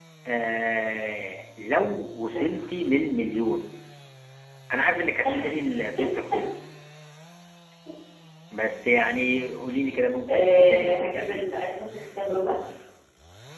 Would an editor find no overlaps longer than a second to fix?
No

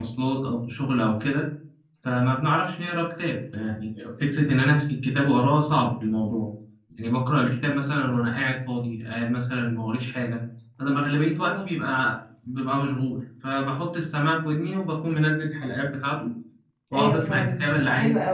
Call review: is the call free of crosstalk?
No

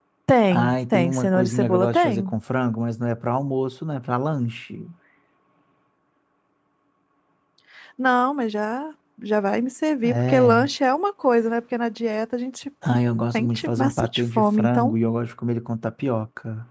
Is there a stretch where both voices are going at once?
Yes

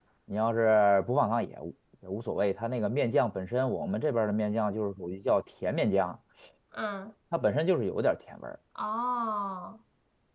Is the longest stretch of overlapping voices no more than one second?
Yes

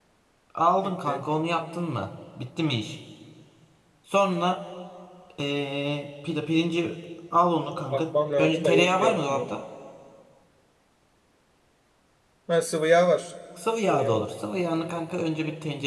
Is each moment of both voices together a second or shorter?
No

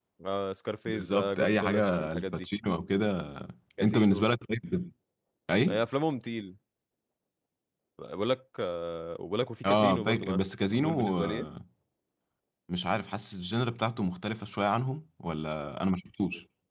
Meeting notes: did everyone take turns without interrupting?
No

